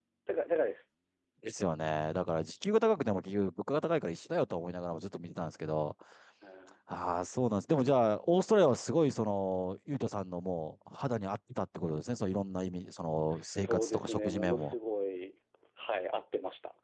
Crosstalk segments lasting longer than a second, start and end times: 13.3-14.7

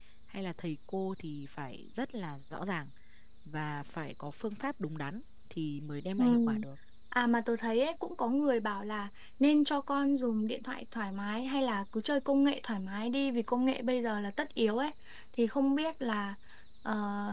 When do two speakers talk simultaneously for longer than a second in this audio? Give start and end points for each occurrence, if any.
none

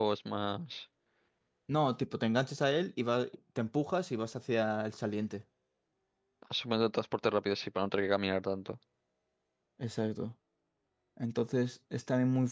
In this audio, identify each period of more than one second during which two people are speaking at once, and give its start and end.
none

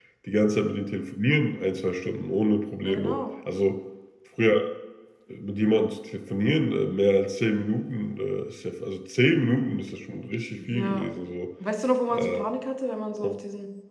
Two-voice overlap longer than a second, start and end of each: none

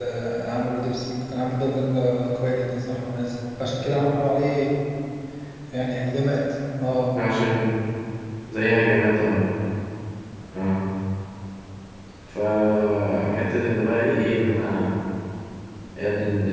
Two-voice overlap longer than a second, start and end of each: none

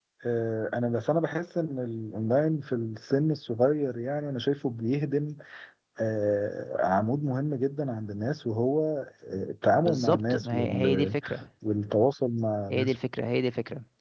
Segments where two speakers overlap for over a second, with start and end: 9.7-11.2

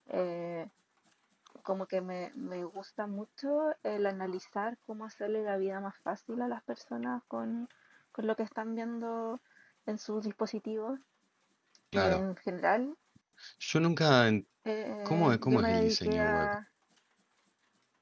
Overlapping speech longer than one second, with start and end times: 15.1-16.5

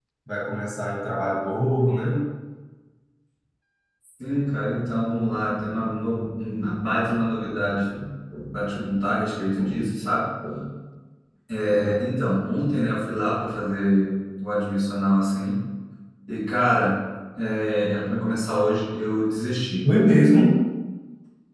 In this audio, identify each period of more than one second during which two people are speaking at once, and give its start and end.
none

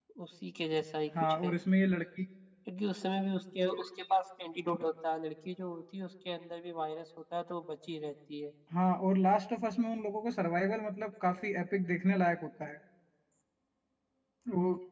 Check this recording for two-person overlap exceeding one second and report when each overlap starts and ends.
none

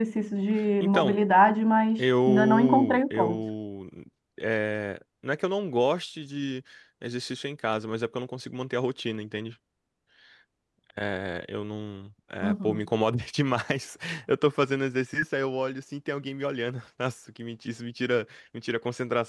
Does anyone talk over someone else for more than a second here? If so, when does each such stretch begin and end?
2.0-3.4

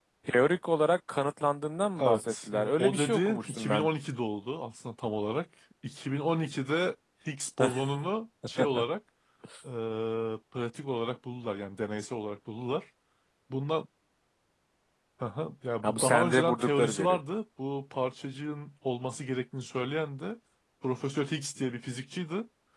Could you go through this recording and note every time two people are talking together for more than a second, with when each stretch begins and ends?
2.0-3.9, 15.8-17.2

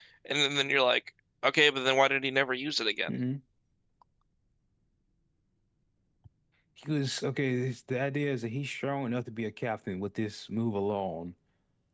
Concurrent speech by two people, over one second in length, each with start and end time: none

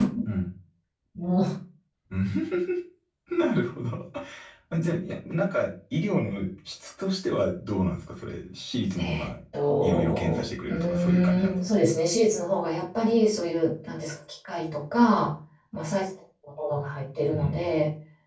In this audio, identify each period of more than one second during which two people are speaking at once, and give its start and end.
9.8-11.6

